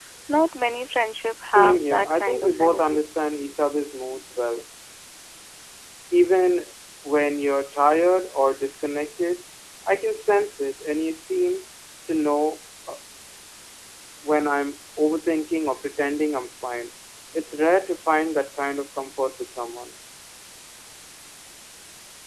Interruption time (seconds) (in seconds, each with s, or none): 1.5 s